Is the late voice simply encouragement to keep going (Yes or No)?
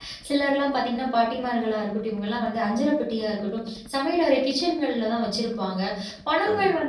Yes